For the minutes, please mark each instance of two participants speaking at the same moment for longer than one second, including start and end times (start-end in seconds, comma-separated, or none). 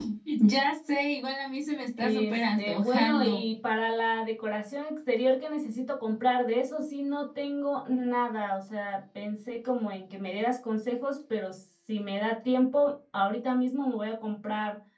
2.0-3.4